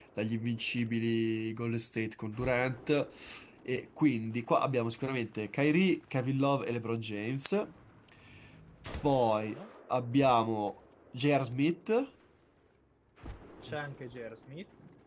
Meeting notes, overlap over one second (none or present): none